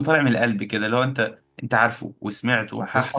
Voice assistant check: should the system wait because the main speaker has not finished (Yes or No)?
No